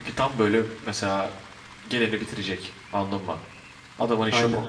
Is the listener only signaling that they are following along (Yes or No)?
No